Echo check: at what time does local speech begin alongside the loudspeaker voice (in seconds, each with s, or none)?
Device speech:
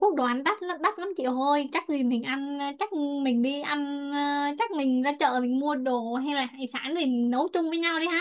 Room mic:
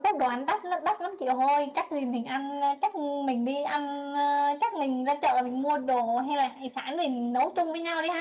none